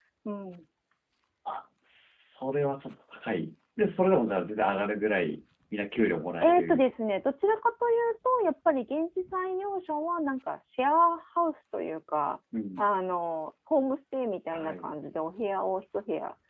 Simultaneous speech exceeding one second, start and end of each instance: none

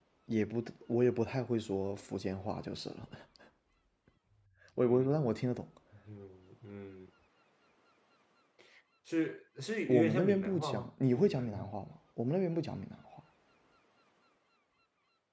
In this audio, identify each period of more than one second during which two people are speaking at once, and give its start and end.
9.9-11.7

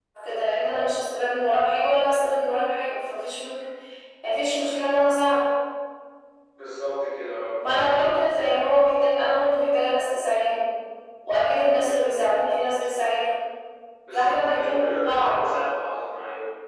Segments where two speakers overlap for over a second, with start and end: 14.1-15.4

